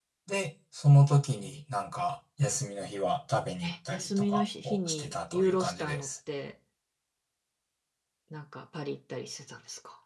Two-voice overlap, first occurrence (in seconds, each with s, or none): 3.6 s